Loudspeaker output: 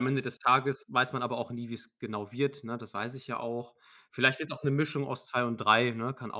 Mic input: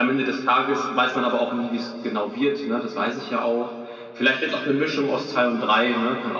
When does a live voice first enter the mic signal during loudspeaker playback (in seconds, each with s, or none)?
none